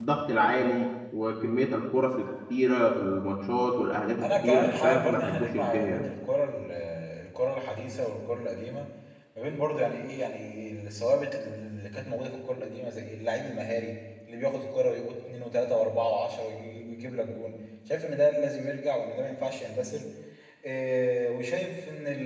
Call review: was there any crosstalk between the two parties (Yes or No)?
Yes